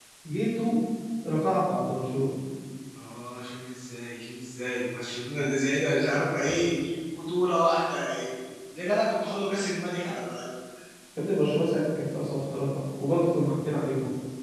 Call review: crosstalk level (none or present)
none